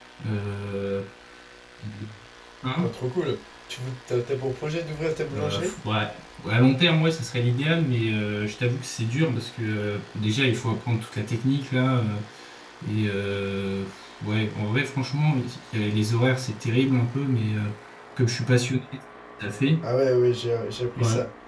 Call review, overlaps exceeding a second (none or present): none